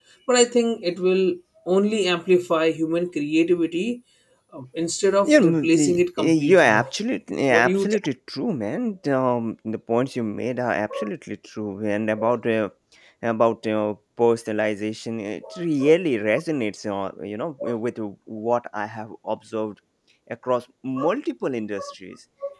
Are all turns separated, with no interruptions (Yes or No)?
No